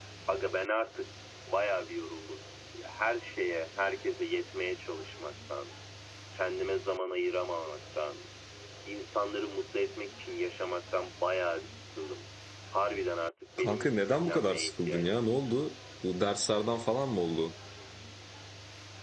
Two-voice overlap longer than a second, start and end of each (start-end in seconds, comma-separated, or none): 13.6-15.4